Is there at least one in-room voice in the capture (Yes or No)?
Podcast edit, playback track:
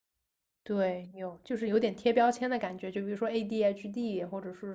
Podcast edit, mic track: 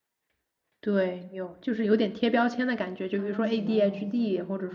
Yes